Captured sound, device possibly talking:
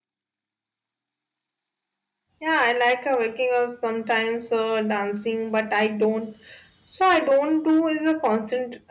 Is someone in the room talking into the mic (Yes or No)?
Yes